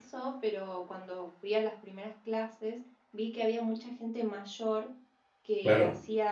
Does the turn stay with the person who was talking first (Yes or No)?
Yes